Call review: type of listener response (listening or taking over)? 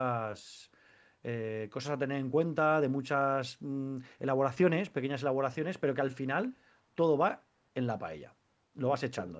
listening